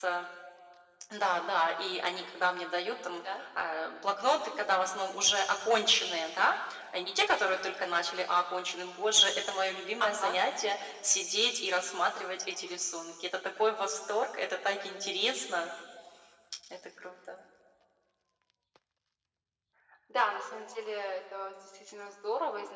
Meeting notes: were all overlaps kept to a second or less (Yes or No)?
Yes